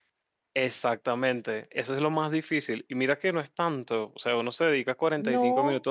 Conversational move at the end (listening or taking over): listening